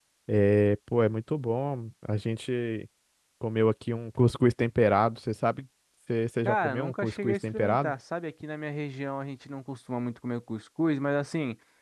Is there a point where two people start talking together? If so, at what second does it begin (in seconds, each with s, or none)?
6.5 s